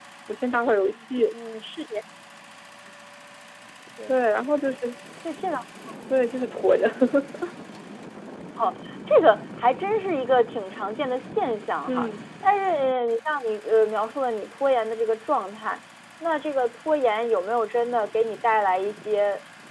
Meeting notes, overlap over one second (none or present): none